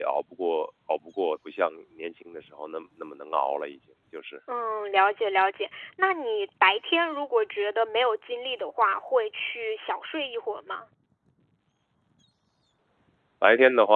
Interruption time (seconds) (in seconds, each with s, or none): none